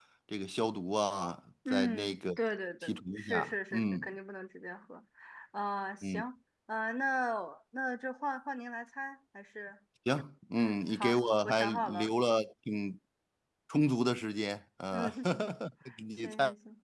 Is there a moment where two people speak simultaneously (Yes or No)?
Yes